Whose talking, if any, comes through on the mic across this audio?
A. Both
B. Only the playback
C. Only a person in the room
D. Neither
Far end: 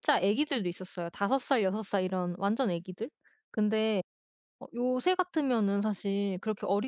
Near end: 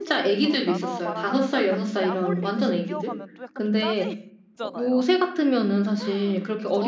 A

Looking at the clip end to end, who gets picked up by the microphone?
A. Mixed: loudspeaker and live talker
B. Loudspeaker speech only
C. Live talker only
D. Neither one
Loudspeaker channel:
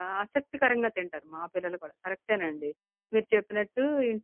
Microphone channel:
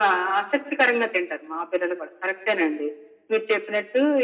B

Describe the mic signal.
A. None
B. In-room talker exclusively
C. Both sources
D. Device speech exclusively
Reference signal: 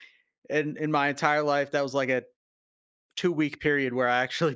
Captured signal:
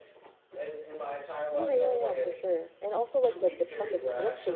C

